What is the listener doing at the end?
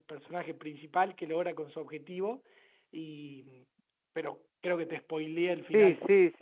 taking over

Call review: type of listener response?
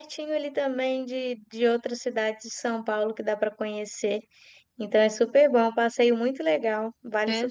taking over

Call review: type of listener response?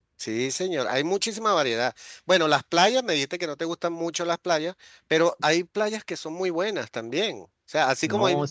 listening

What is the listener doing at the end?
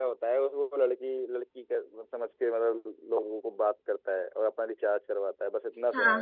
taking over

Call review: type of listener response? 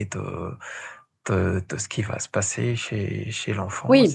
taking over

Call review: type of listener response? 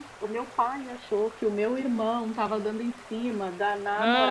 taking over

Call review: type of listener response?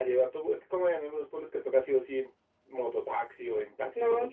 taking over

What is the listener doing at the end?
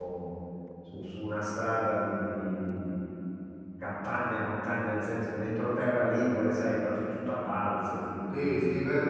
taking over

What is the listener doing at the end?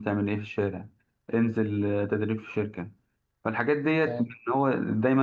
listening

